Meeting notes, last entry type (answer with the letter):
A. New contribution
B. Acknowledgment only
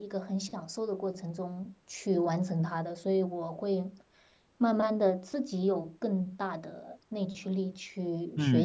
A